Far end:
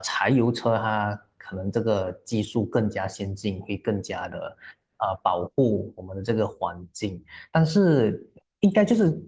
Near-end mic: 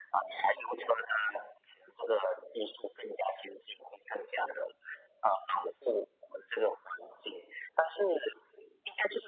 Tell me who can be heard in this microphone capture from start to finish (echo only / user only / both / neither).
echo only